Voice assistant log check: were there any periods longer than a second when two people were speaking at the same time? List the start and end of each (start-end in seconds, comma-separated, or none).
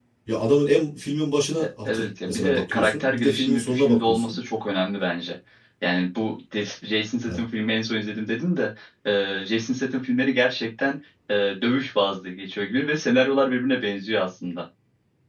1.6-4.3